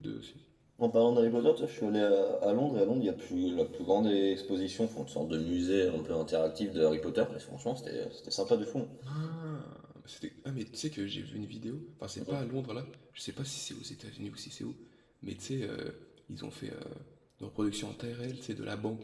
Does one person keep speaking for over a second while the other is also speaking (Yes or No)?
No